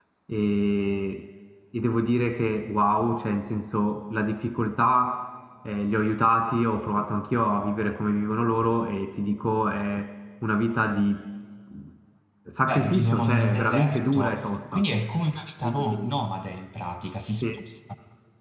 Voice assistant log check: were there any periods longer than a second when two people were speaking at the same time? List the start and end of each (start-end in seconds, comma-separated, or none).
12.7-14.8